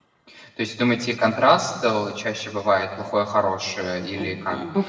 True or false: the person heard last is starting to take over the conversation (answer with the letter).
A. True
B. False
A